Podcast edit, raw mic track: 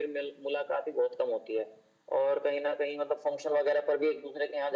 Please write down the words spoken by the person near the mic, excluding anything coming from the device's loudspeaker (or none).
none